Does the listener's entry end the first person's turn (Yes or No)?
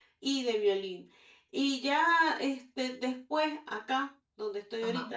No